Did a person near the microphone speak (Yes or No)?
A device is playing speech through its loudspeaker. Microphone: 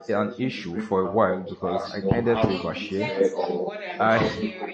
Yes